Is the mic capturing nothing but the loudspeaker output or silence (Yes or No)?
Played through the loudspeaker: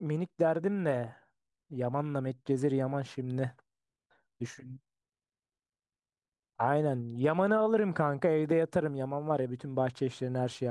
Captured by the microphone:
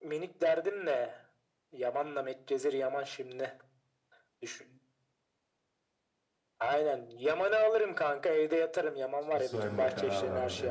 No